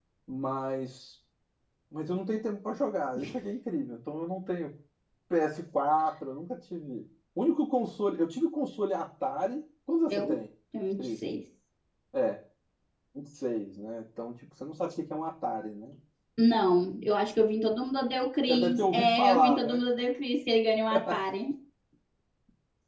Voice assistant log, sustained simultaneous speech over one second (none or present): present